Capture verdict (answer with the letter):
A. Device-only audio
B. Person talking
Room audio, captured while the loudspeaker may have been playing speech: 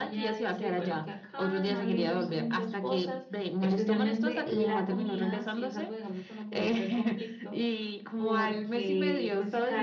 B